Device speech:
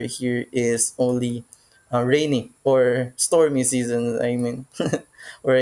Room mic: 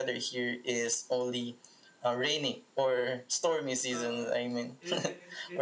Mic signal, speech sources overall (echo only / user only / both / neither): both